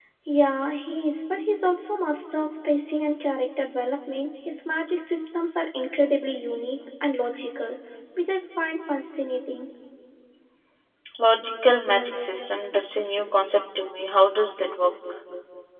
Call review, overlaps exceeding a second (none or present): none